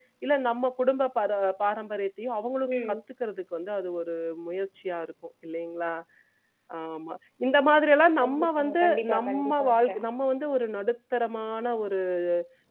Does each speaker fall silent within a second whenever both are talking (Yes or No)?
No